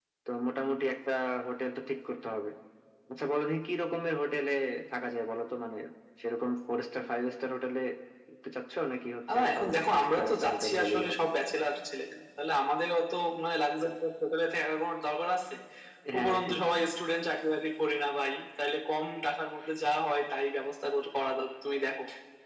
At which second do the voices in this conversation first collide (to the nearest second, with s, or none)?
9 s